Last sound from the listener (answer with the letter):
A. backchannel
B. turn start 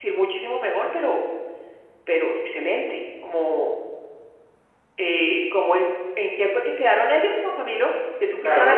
B